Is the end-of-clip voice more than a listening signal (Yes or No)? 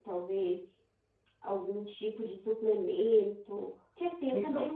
No